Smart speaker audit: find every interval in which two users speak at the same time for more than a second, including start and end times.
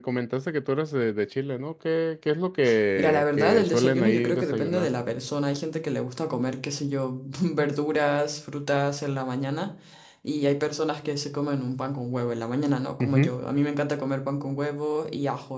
3.0-4.9

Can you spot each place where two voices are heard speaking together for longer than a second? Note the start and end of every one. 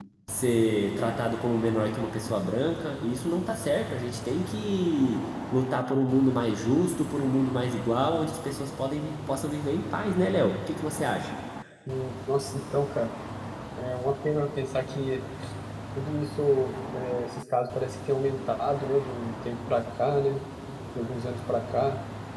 none

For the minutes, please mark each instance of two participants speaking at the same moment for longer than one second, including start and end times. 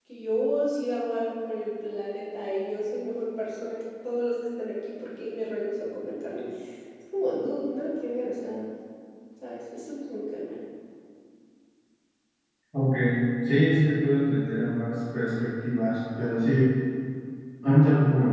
none

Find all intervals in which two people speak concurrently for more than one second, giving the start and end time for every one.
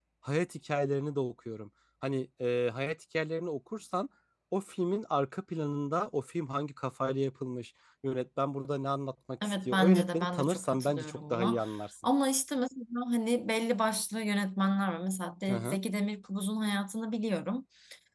9.4-11.6

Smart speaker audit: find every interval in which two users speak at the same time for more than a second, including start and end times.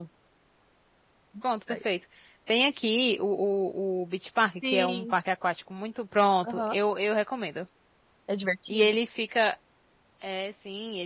none

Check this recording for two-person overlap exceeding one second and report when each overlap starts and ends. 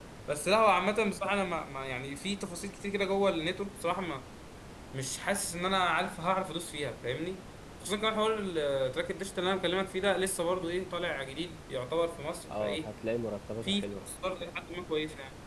none

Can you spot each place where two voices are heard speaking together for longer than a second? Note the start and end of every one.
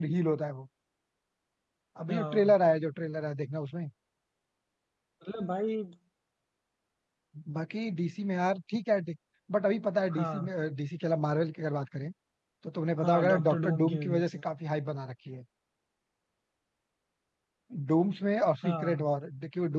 13.0-14.4

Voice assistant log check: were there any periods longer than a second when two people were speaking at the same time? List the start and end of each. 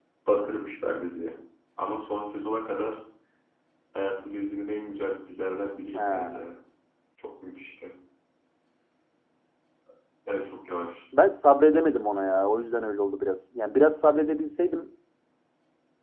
none

